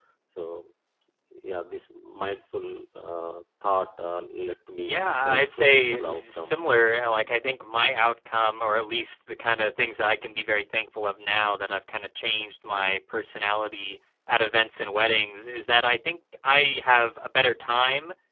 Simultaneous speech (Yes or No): Yes